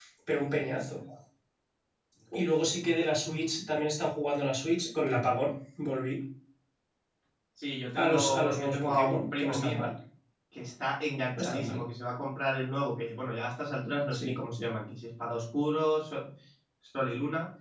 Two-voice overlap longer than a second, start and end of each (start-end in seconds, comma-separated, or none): 8.0-9.9